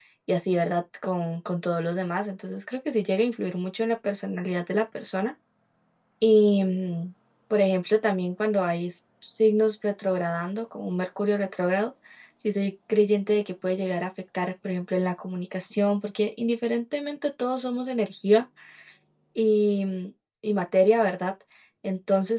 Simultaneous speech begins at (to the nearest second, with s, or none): none